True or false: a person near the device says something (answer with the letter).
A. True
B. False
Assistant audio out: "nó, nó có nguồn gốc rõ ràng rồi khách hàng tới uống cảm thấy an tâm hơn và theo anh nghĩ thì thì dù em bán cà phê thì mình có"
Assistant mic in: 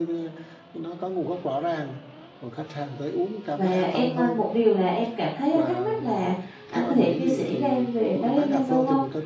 A